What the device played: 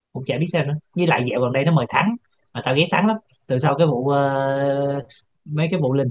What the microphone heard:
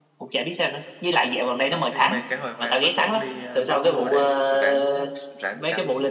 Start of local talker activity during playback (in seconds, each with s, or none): 1.6 s